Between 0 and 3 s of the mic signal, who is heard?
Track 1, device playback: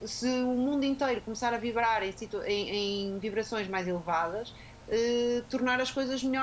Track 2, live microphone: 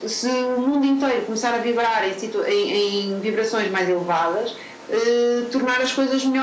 echo only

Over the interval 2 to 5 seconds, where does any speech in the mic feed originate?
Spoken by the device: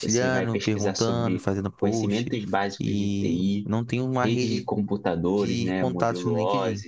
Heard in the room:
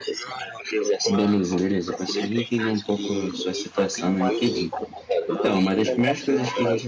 both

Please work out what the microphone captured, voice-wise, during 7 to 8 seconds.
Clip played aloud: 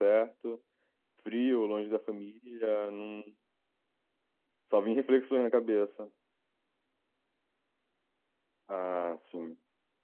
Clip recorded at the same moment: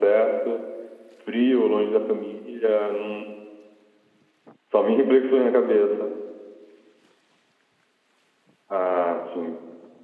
neither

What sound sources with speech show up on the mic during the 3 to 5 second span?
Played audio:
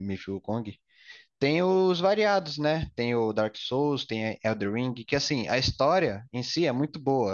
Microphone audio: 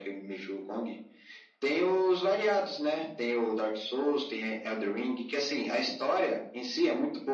echo only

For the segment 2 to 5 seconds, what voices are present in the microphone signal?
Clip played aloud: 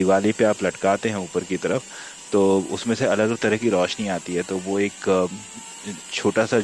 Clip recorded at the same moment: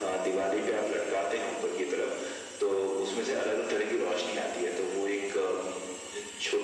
echo only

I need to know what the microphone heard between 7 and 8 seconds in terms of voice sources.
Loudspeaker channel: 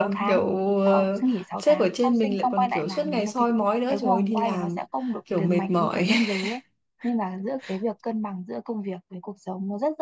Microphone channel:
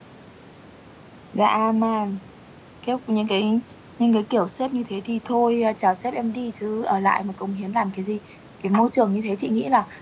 user only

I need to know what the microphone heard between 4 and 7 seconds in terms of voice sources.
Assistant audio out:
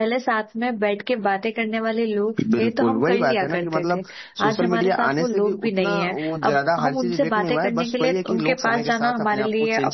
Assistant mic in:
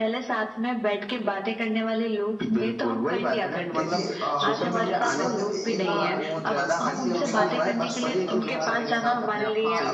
both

